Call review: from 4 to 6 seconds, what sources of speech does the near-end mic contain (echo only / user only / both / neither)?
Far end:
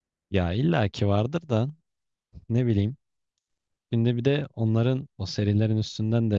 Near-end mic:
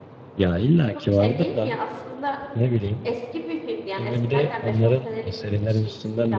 both